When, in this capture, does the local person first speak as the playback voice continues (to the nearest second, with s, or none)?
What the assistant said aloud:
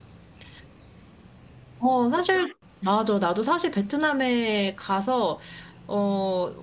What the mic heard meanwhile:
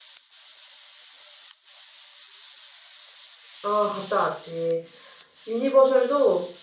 4 s